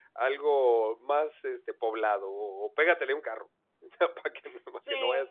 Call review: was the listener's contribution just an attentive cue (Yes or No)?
No